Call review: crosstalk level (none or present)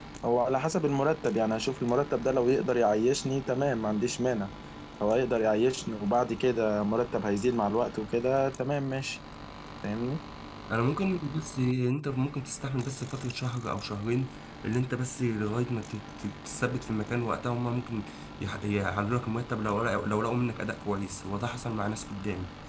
none